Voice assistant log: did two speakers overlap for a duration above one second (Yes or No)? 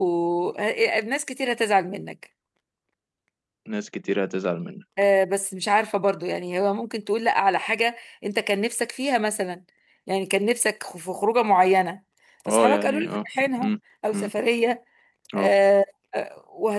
Yes